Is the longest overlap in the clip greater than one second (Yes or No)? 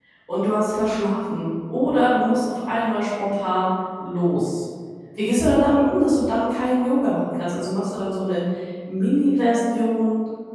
No